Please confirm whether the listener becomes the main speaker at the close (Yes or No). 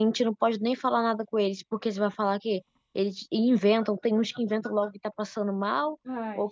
No